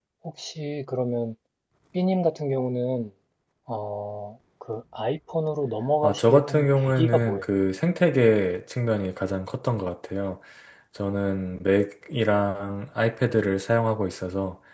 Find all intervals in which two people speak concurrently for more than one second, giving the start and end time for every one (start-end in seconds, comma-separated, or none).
6.0-7.5